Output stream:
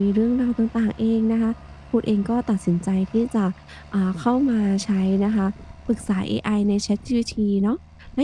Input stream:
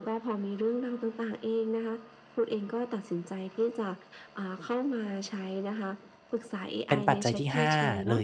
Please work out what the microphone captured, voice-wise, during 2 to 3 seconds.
echo only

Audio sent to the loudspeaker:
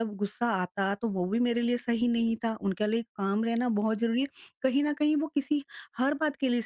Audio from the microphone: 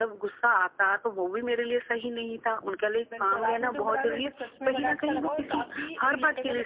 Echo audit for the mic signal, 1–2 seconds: echo only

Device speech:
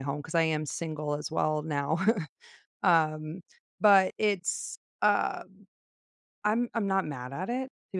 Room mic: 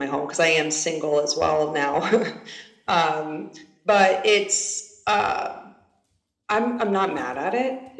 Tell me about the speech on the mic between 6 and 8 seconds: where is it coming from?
echo only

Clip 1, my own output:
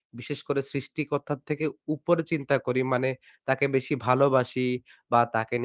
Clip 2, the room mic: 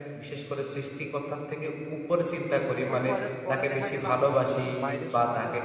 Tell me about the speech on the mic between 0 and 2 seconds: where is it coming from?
echo only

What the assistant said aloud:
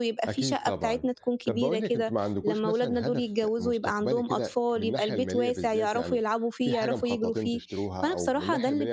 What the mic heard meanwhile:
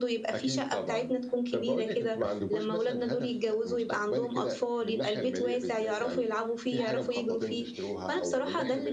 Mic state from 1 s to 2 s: echo only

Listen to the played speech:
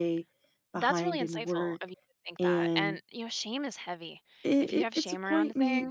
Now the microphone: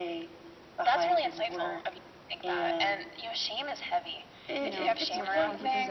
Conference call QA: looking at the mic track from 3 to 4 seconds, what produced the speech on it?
echo only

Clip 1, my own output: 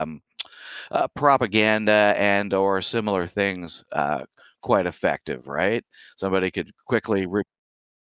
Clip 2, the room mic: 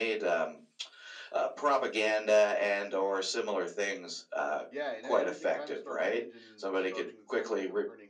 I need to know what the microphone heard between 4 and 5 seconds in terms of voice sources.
both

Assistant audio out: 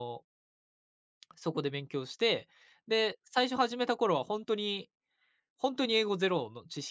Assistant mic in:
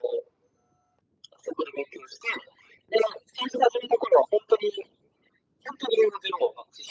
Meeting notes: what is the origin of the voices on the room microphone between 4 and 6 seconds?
echo only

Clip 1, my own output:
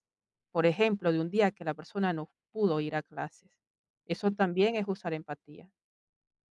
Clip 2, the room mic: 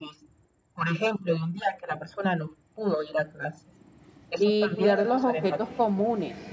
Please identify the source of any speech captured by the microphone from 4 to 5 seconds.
both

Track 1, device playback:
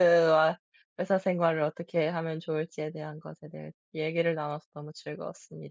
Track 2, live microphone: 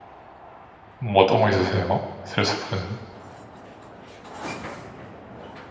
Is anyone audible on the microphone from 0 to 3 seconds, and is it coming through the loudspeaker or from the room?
user only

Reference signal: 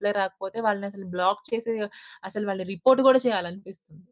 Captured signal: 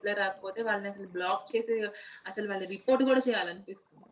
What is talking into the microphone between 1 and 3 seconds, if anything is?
echo only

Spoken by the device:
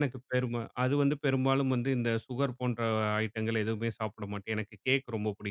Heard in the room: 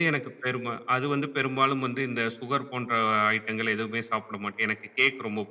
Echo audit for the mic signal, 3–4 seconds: echo only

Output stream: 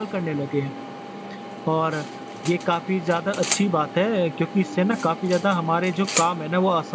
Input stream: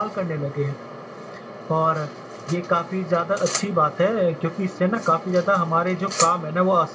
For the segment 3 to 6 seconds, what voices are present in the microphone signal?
echo only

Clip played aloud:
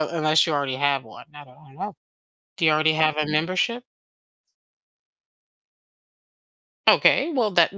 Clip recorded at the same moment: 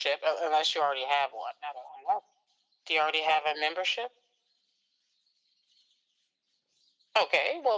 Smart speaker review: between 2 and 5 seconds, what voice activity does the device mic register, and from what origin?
echo only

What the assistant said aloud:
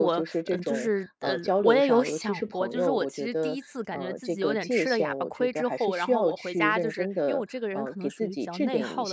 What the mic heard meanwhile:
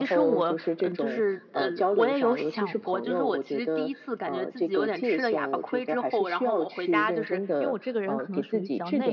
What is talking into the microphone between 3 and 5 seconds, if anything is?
echo only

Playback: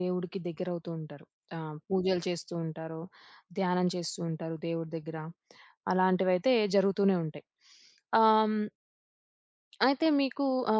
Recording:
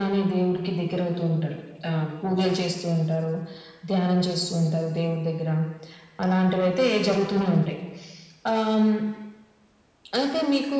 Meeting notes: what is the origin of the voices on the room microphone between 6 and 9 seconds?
echo only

